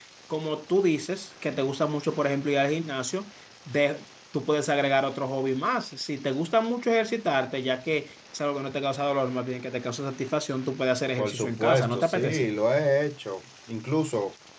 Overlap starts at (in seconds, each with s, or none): 11.2 s